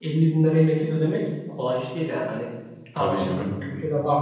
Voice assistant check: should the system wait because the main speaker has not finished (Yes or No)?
Yes